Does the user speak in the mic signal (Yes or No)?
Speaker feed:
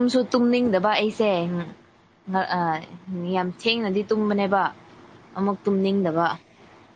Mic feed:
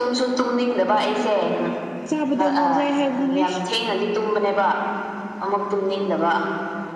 Yes